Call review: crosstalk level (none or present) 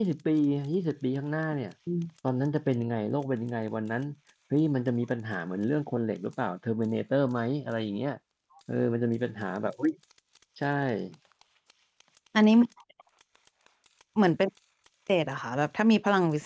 none